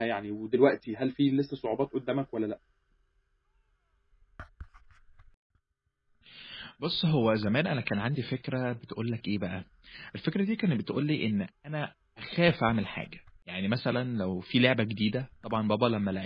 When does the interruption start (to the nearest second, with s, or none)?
none